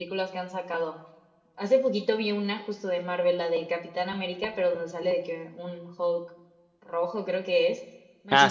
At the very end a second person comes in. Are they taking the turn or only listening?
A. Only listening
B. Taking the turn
A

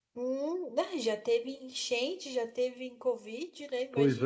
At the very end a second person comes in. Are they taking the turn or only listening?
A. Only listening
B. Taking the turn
B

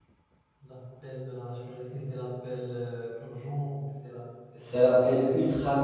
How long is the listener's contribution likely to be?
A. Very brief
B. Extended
B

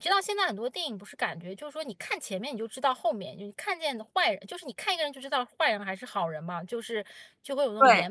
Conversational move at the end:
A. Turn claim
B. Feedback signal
B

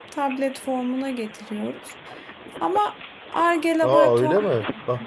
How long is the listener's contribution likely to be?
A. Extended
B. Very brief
A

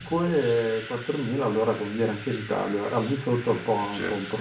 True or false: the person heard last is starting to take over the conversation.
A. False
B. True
B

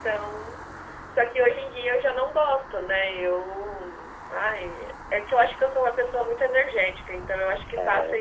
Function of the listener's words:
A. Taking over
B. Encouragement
A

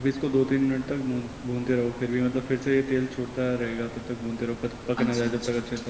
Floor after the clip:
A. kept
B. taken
B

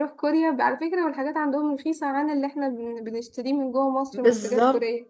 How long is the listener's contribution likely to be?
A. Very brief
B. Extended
B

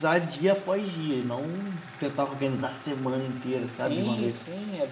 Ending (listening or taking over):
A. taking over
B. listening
A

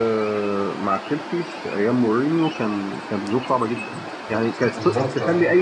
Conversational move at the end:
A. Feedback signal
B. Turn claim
A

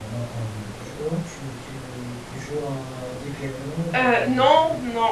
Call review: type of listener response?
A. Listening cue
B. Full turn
B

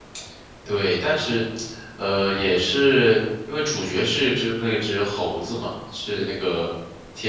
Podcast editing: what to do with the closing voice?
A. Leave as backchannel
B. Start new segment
A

